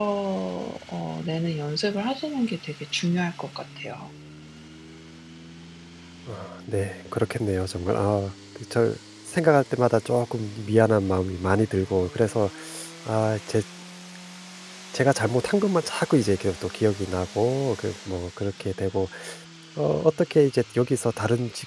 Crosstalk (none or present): none